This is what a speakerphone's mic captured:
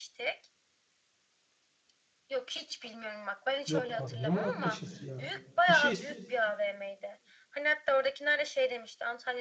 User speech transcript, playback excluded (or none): yok abi ne Muratpaşa'sı ya. Bir şey